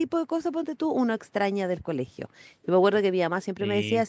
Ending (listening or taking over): listening